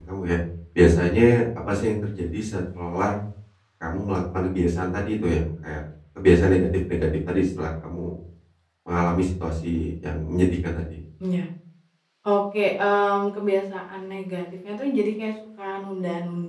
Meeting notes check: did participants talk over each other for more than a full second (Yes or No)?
No